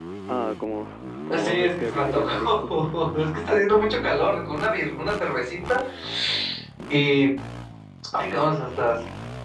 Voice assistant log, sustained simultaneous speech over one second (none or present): present